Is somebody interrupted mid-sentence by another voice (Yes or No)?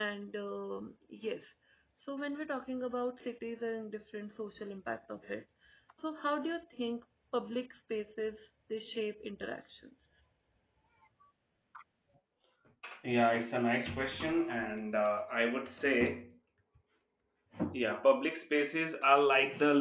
No